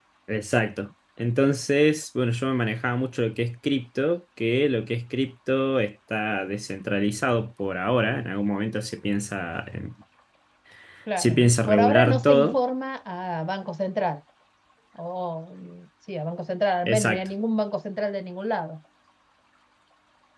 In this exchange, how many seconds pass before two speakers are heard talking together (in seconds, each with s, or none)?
11.2 s